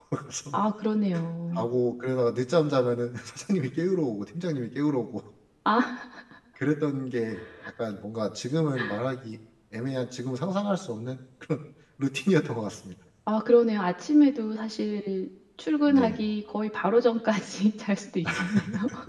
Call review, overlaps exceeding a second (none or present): none